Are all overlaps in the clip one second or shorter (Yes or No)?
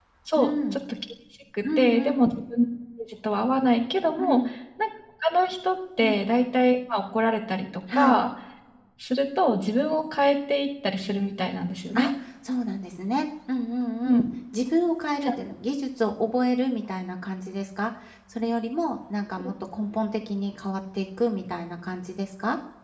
Yes